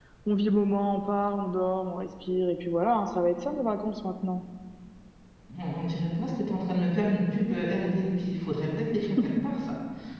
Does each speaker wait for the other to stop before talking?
Yes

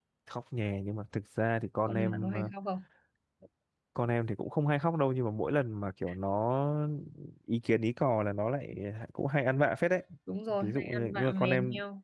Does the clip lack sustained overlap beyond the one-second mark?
No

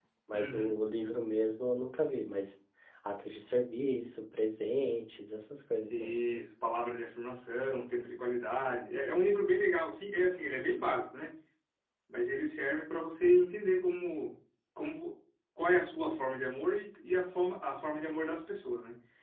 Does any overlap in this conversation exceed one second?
No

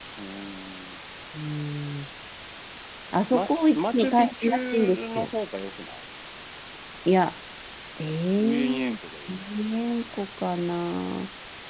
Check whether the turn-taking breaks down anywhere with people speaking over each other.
Yes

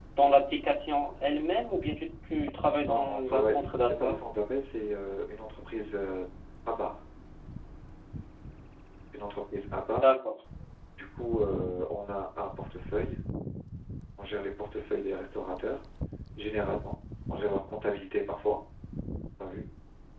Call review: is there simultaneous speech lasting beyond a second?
Yes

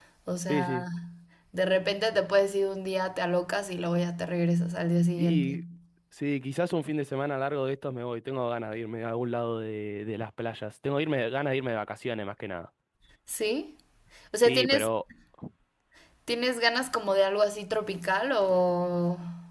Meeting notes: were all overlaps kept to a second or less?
Yes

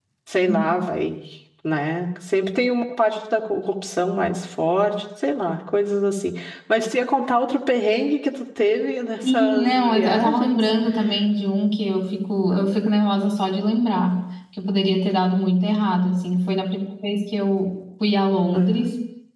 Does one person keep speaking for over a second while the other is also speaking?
Yes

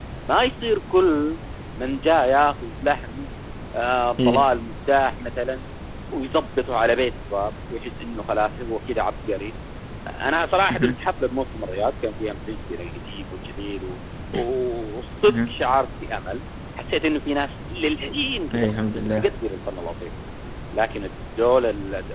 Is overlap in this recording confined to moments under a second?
Yes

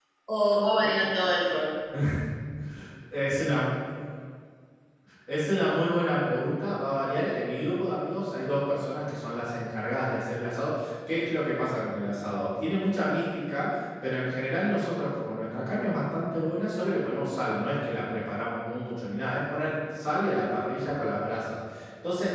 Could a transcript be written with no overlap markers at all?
Yes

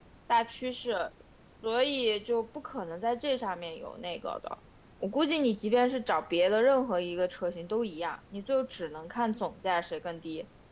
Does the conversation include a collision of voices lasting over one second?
No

